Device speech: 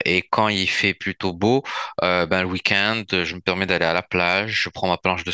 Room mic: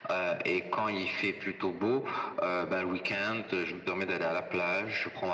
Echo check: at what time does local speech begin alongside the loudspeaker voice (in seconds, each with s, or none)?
none